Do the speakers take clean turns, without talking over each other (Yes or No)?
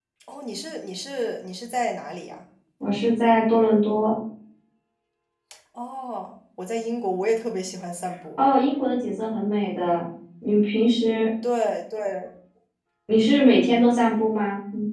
Yes